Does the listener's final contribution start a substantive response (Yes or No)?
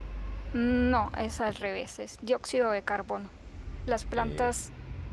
No